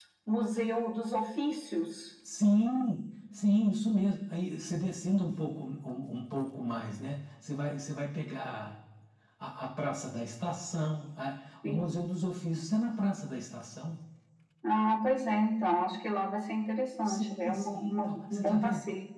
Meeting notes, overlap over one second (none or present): present